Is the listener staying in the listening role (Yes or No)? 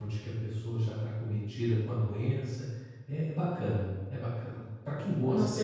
No